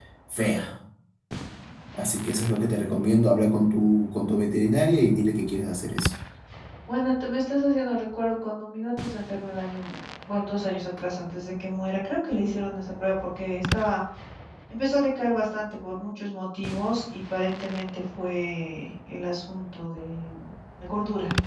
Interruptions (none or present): none